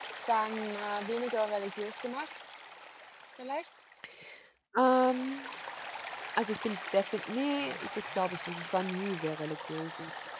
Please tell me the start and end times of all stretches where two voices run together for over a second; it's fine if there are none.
none

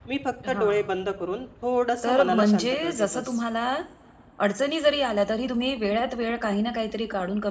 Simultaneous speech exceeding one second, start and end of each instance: 2.0-3.3

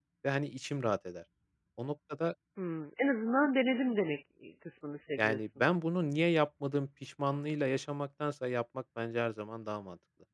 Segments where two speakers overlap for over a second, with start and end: none

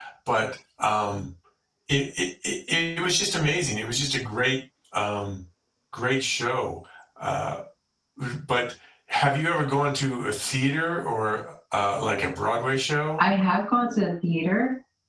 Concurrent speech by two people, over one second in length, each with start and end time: none

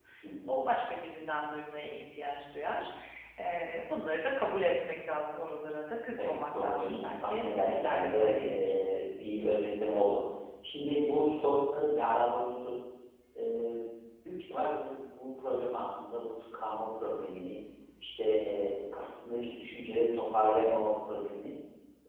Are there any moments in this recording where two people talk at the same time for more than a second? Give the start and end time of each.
6.2-8.6

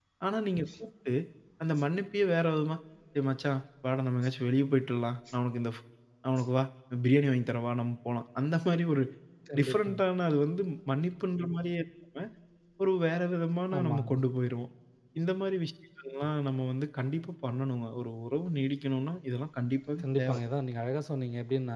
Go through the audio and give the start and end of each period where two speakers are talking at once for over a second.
none

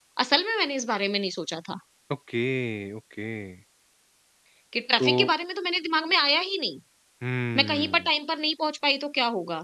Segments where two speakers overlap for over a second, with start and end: none

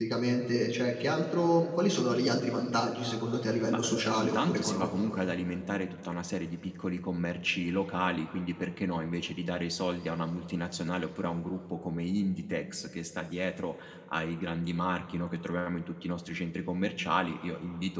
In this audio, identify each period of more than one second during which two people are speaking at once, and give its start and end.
3.7-5.0

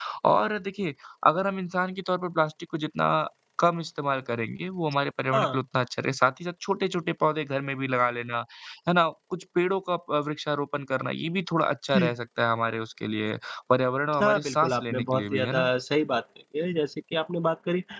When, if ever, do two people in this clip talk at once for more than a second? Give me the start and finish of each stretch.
14.2-15.7

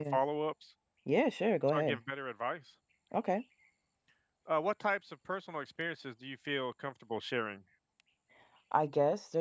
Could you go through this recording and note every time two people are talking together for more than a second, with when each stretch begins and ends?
none

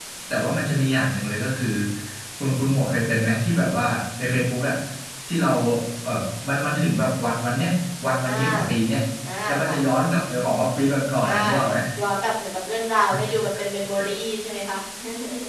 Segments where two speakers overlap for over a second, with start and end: none

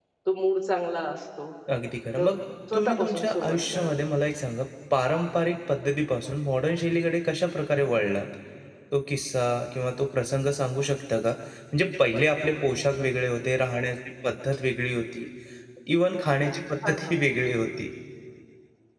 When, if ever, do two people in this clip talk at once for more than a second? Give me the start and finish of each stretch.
2.7-4.0

